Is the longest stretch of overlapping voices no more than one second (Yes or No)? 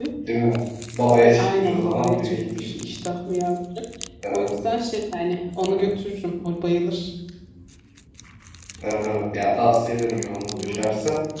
No